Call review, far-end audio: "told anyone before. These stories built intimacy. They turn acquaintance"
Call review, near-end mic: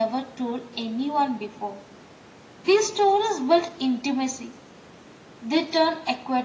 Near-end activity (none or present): none